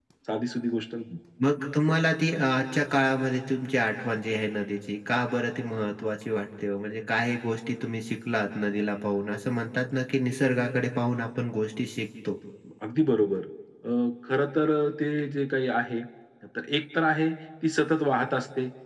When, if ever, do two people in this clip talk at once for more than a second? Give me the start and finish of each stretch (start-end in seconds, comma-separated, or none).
none